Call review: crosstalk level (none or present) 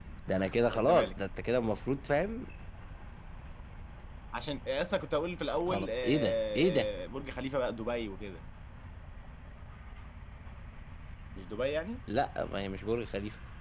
present